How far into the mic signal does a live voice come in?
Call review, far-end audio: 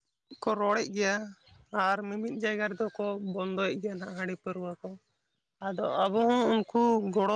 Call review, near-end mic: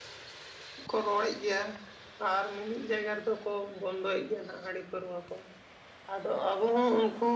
none

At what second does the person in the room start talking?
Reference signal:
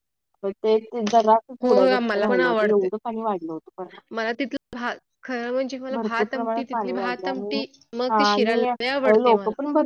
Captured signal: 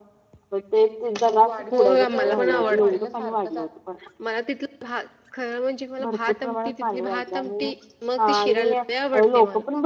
1 s

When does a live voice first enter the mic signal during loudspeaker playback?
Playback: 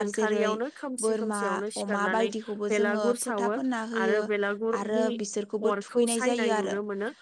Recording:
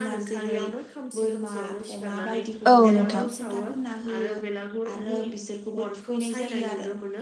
3 s

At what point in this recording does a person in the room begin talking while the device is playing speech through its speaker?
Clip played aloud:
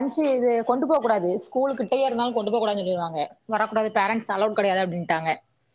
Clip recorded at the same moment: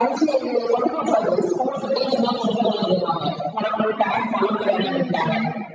5 s

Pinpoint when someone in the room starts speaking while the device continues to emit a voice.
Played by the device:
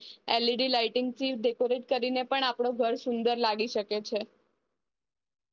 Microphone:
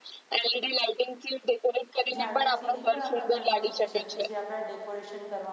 2 s

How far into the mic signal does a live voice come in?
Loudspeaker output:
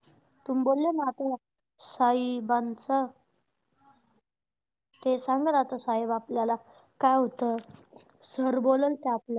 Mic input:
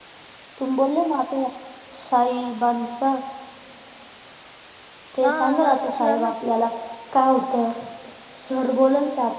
5 s

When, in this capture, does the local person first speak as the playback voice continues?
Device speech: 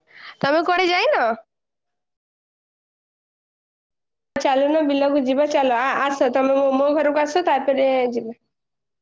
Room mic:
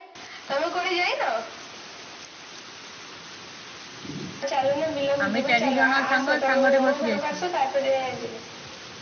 5 s

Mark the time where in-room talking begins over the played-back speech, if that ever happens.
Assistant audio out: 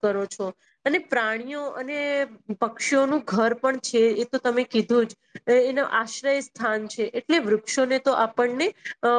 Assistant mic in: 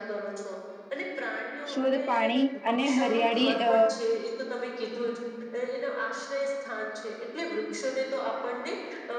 2 s

